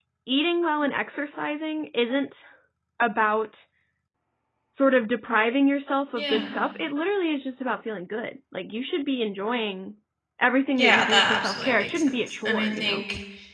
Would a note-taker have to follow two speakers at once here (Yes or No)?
Yes